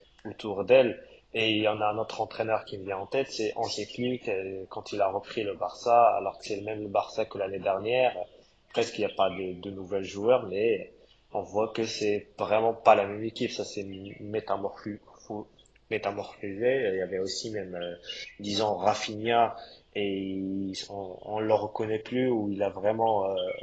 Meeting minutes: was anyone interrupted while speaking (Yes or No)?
No